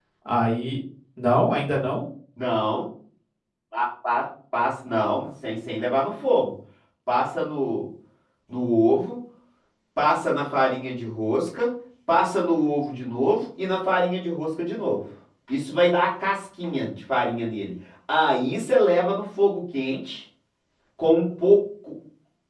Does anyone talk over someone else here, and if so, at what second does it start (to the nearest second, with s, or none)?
none